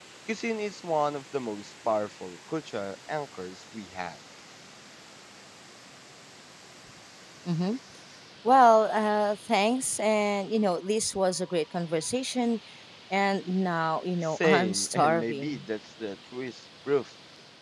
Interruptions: present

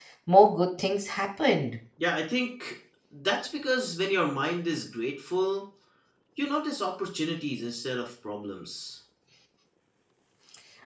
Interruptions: none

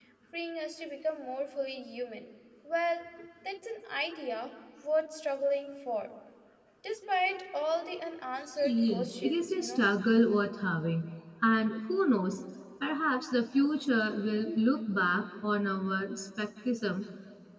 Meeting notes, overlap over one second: present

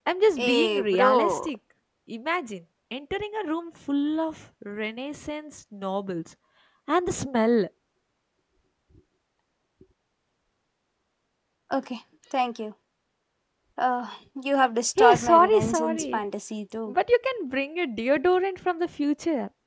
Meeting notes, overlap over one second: present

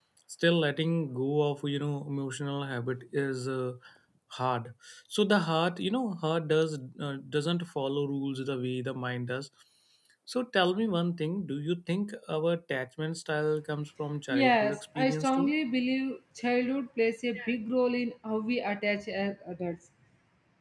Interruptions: present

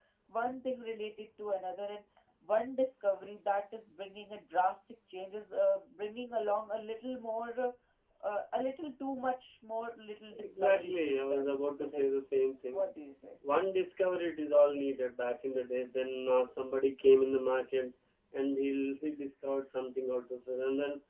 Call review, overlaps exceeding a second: present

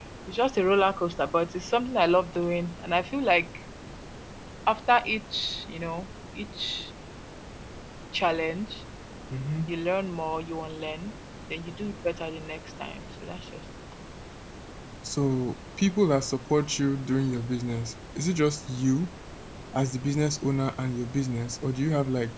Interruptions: none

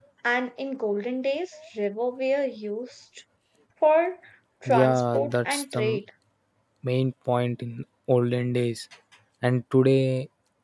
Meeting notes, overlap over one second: present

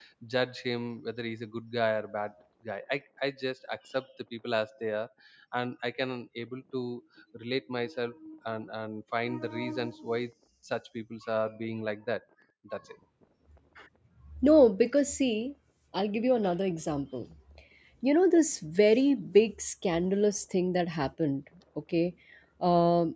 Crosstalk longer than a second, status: none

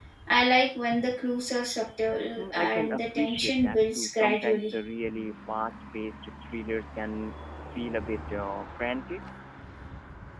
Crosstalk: present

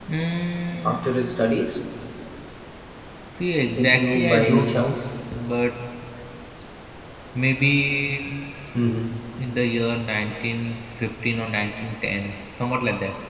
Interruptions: present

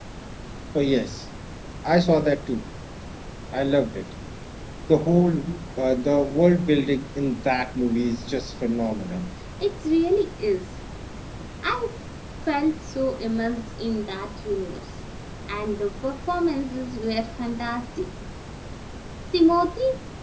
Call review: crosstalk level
none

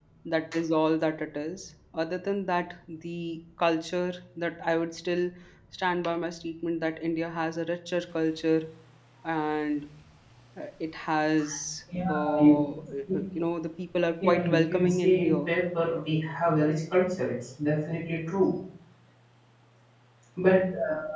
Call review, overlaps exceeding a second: present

